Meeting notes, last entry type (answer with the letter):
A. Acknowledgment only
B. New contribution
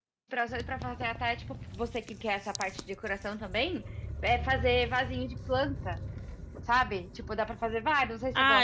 B